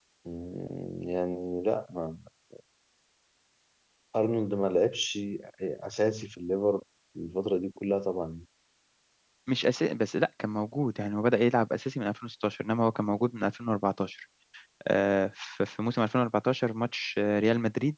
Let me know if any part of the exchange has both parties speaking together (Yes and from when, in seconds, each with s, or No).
No